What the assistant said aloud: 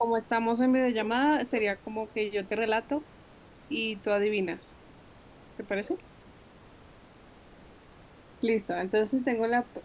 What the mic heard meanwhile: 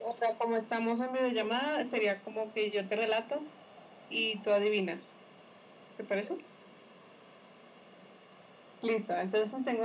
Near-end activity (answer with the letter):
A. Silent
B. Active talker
A